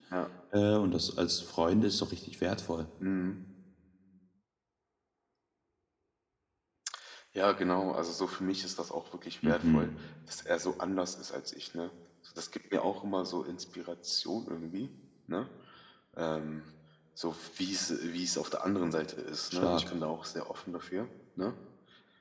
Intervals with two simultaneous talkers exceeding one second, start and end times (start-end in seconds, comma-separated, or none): none